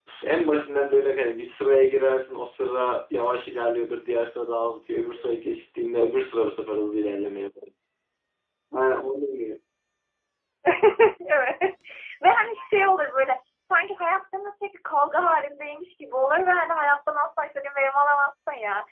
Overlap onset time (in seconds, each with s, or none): none